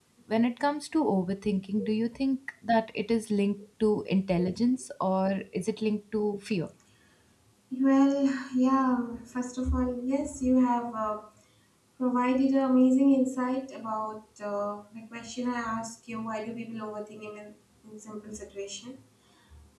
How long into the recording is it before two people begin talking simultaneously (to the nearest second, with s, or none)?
none